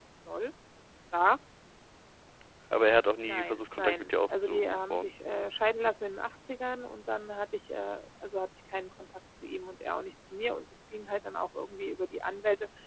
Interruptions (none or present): present